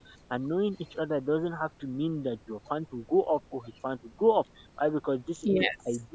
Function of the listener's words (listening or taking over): listening